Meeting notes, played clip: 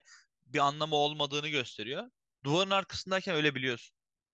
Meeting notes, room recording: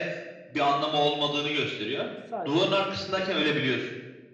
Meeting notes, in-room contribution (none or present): present